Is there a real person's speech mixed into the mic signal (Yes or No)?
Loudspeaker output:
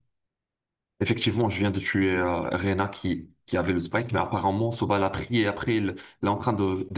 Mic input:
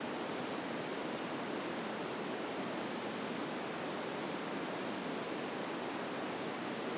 No